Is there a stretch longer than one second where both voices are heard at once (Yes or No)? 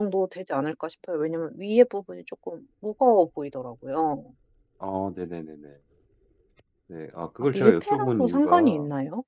Yes